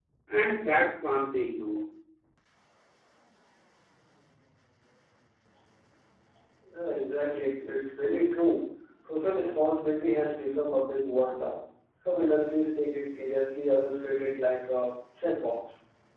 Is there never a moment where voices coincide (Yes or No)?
Yes